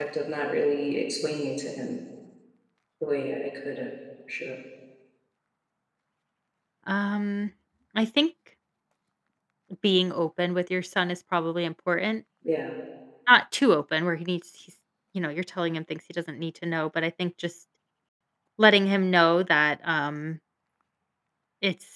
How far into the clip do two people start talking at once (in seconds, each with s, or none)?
none